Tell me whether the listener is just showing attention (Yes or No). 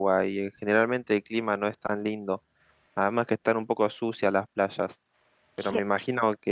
Yes